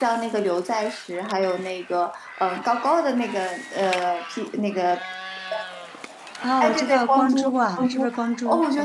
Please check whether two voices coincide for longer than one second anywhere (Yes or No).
Yes